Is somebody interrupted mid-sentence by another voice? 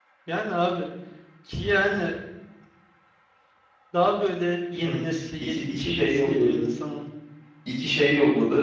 Yes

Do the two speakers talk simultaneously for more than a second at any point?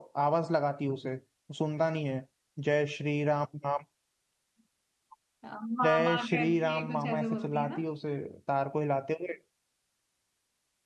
Yes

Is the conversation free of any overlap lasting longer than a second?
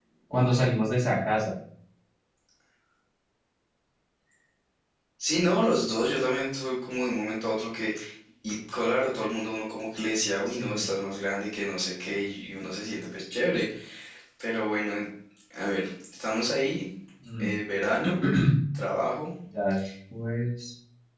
Yes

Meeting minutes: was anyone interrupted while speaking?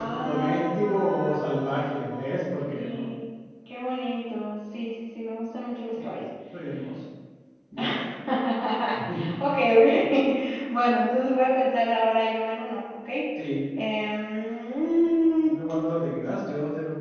Yes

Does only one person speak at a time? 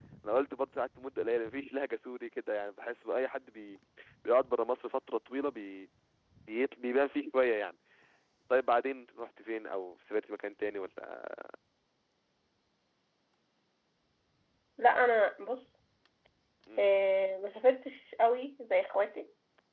Yes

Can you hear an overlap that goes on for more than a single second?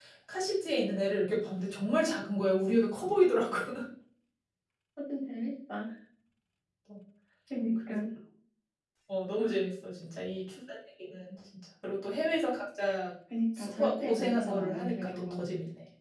Yes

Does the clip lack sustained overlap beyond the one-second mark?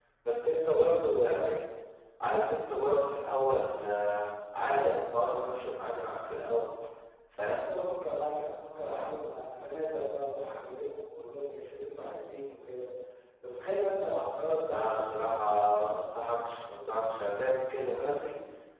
Yes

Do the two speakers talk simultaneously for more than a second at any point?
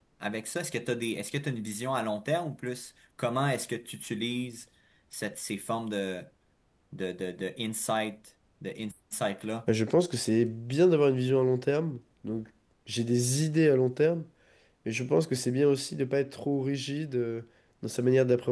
No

